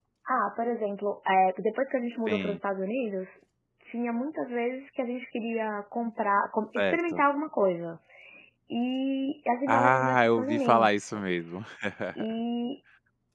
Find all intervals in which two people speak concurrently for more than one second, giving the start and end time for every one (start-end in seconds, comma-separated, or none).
9.7-11.6